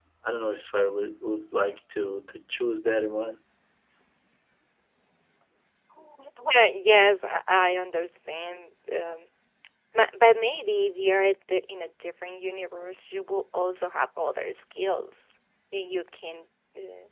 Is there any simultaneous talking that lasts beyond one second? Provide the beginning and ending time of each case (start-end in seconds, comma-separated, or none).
none